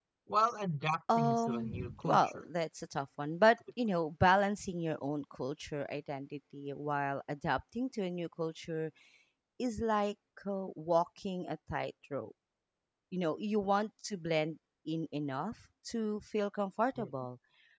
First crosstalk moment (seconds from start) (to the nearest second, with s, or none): 1 s